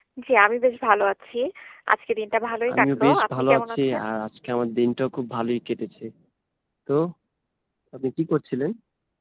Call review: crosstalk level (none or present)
present